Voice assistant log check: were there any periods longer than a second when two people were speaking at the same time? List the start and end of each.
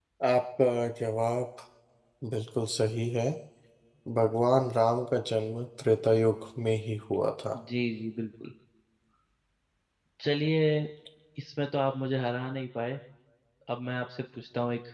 none

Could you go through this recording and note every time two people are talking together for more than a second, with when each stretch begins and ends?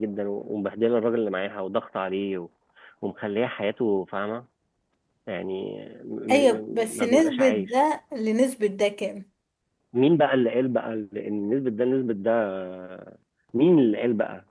6.3-7.7

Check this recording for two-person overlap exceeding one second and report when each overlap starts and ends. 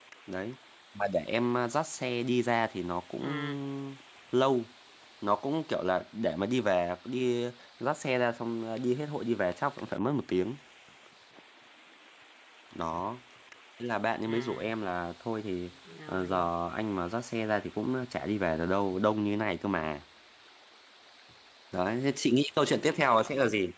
none

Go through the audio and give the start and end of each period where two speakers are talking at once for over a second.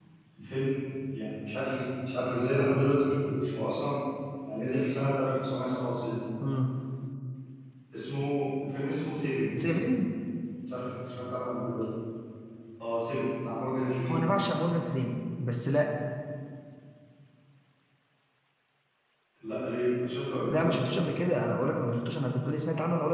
none

